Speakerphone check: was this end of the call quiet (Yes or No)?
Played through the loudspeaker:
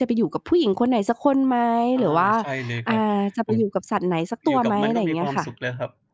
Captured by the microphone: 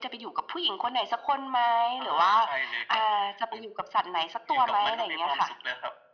Yes